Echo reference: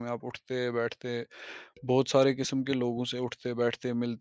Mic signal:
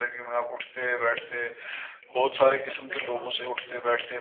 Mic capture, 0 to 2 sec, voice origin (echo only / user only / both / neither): echo only